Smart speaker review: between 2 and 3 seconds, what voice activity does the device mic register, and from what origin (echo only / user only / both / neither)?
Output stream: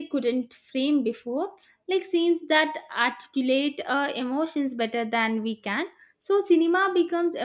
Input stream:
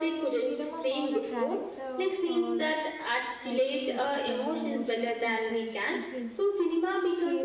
both